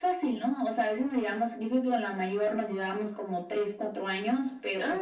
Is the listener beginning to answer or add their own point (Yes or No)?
No